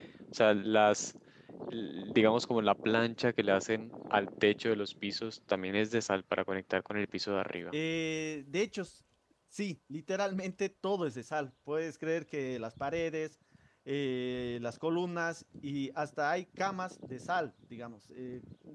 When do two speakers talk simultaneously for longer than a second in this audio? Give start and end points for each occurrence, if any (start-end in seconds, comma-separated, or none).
none